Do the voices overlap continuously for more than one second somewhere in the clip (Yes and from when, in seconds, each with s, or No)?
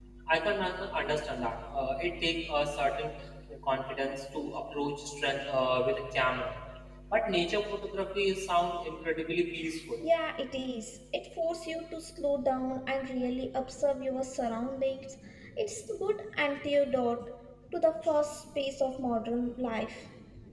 No